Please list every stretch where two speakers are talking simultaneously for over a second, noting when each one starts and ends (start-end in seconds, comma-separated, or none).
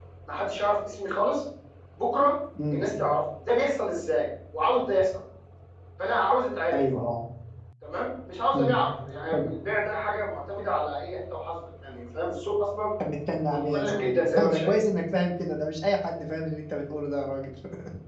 13.5-14.8